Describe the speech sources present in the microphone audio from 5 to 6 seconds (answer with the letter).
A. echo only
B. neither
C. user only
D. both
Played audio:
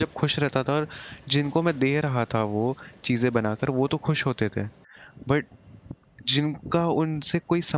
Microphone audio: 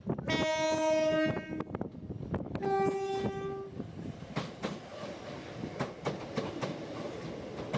B